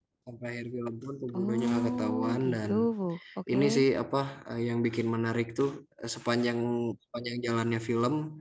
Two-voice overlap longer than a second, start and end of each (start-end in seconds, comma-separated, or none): 1.4-2.7